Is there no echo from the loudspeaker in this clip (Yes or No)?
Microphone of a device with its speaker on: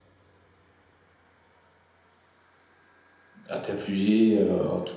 Yes